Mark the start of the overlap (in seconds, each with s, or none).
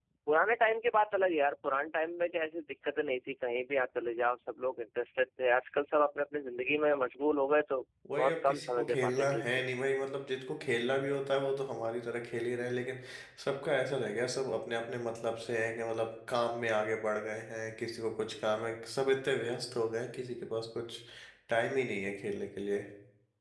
8.2 s